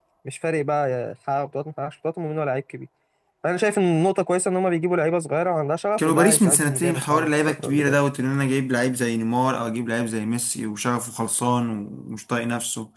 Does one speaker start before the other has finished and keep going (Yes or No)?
Yes